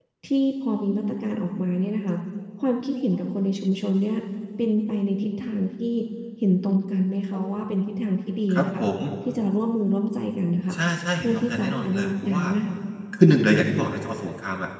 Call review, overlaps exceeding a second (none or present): present